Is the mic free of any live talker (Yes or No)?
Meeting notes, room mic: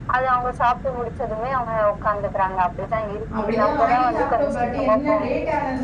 No